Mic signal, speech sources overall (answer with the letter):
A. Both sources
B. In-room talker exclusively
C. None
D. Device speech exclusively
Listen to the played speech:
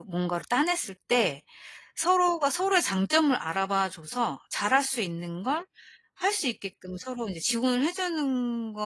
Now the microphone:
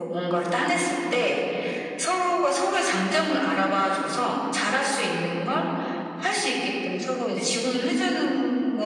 D